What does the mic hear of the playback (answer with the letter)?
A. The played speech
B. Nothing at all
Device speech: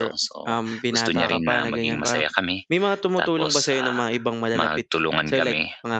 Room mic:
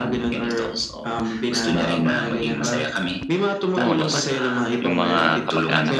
A